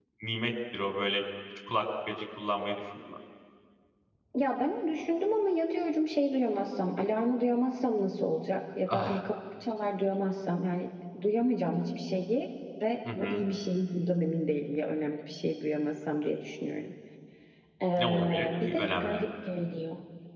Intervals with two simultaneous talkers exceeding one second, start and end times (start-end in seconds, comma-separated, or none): 18.0-19.2